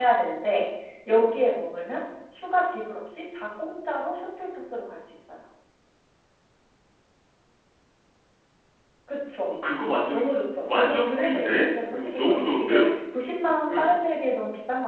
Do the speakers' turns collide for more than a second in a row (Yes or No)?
Yes